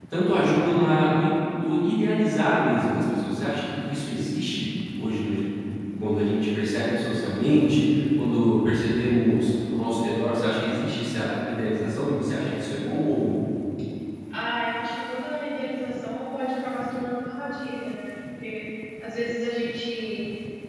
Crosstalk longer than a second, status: none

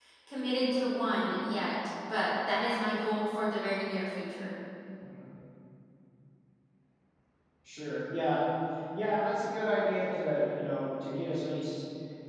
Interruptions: none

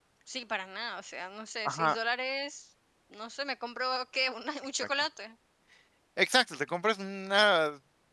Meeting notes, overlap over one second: none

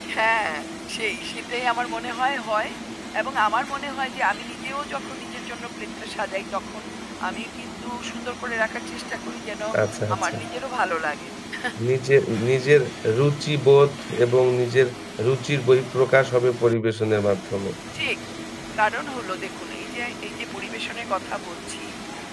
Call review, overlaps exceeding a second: none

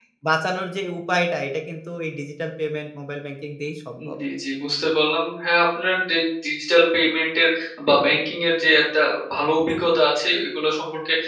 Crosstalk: none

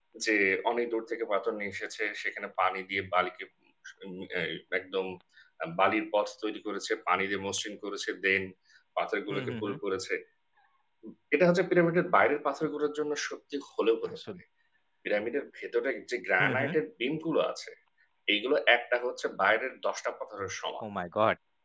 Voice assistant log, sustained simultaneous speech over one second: none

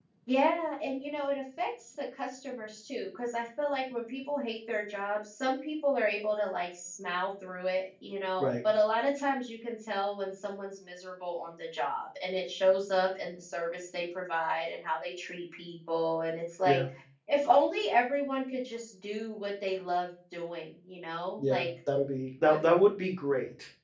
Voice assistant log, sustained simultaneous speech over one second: none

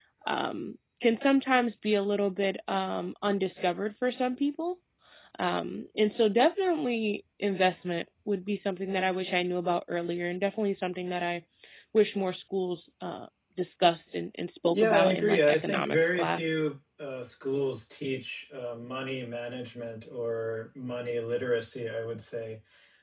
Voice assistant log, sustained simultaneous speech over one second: present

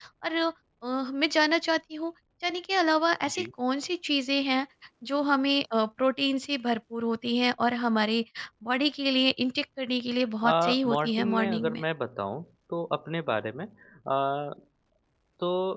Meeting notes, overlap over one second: present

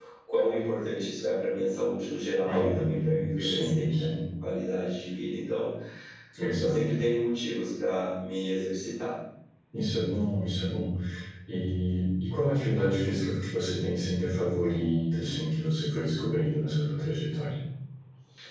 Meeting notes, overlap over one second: present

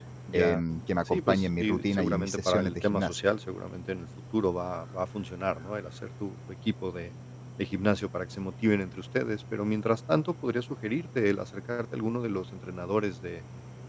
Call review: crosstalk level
present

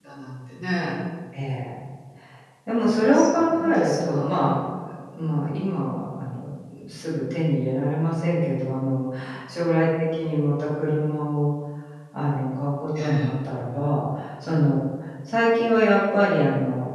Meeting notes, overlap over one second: present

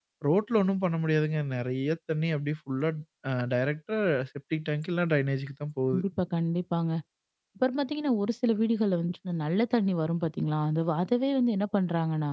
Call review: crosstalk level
none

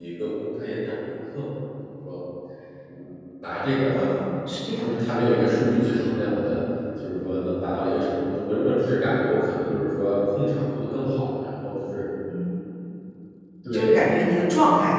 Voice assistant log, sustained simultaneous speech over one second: none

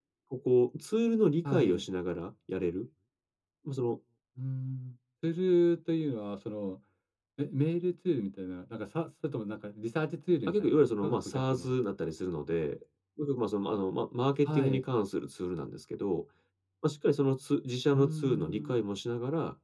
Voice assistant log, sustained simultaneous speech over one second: present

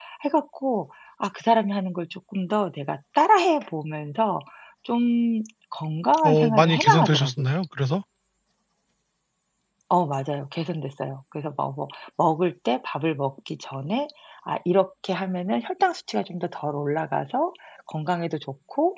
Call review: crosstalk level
present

